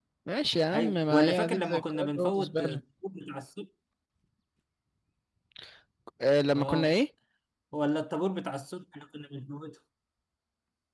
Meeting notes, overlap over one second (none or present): present